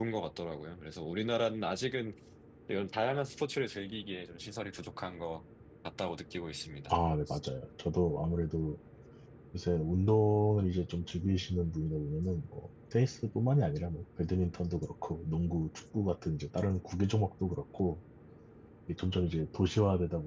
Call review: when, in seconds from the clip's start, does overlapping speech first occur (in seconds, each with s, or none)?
none